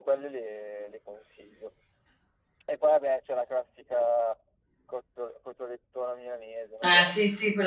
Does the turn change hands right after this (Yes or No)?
Yes